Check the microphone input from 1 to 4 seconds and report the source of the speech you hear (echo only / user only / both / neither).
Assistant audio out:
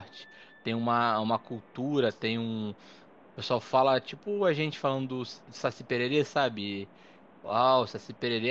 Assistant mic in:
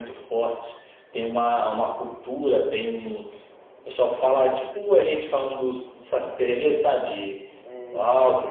echo only